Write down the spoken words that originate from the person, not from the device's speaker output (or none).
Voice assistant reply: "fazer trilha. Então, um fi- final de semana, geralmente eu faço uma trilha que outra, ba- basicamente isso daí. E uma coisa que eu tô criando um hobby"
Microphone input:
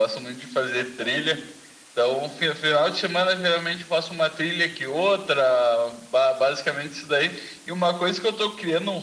none